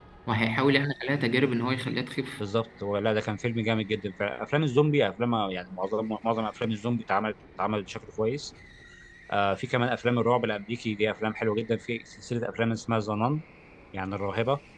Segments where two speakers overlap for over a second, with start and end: none

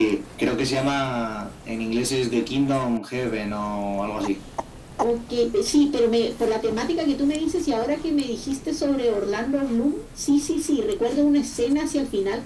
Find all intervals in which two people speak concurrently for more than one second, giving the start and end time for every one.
none

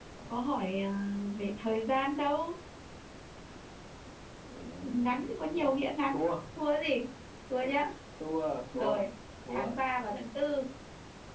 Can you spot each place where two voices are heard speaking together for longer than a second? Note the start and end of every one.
none

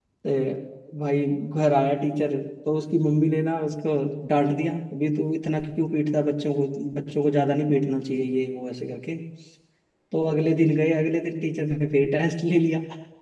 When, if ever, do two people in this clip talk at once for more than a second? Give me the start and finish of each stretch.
none

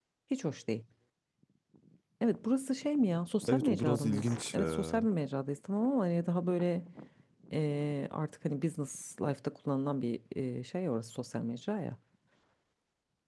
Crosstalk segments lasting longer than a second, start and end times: 3.5-5.1

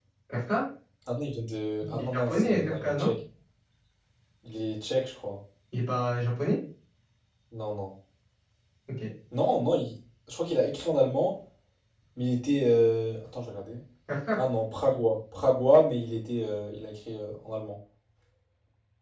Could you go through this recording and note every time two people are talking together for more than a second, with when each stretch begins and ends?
1.8-3.1

